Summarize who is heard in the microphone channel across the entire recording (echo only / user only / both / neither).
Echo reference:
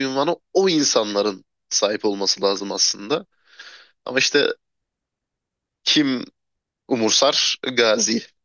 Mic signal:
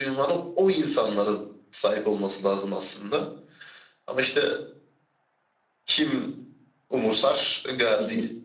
echo only